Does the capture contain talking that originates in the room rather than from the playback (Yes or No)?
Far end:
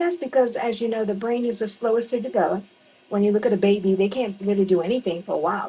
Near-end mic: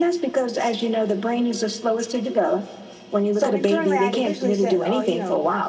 Yes